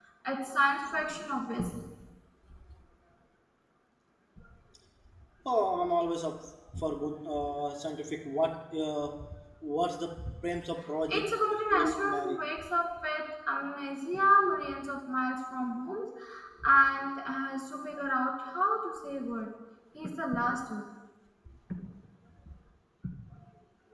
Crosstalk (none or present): present